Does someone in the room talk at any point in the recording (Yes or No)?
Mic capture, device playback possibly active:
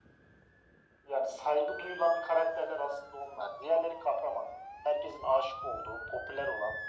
No